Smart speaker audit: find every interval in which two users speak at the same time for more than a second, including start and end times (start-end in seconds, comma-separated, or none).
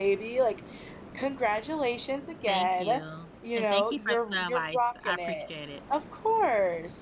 3.5-5.4